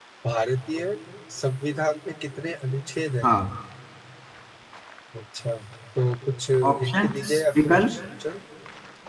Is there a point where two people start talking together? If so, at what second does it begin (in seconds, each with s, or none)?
6.7 s